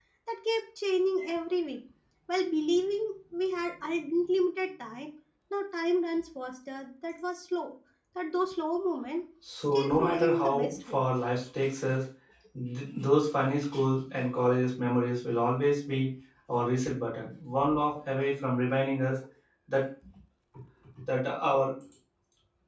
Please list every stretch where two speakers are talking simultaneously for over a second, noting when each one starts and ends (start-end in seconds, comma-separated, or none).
9.7-11.0